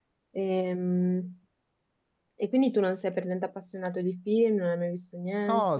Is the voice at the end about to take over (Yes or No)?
Yes